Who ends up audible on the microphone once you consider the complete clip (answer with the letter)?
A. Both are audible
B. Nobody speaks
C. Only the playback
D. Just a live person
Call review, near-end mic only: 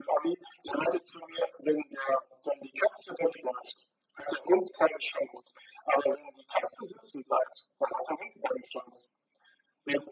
C